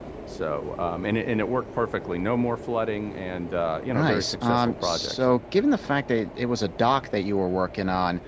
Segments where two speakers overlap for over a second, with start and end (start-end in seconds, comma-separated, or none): 3.9-5.4